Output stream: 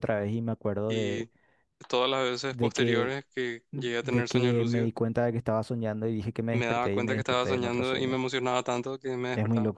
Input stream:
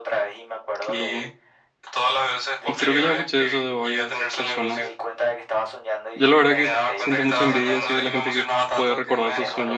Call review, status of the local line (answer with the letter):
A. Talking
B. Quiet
A